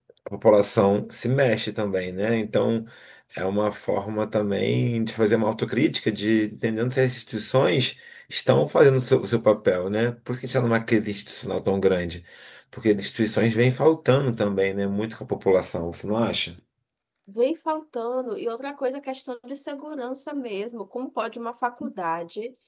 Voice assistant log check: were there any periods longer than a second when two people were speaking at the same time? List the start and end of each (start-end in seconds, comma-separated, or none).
none